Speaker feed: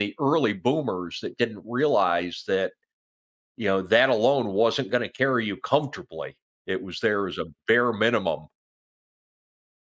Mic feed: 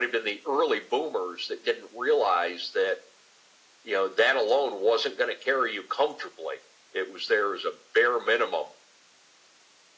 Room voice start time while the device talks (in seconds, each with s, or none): none